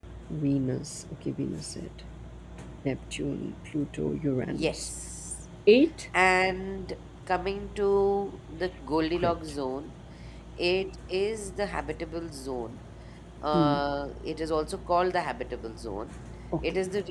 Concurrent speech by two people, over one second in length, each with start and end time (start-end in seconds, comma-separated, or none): none